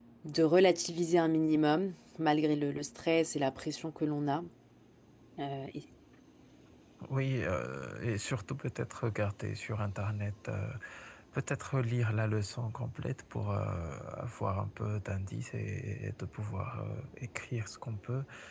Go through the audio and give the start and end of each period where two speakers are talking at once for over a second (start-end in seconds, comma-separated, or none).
none